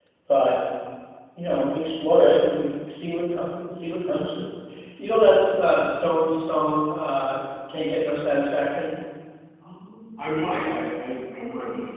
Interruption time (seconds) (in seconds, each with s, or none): none